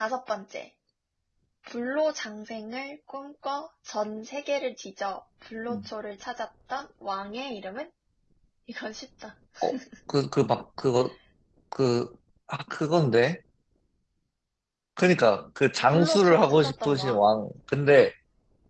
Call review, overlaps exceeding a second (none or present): present